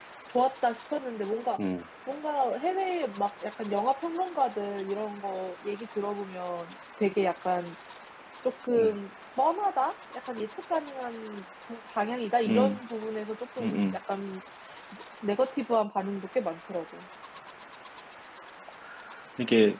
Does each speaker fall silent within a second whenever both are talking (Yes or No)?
Yes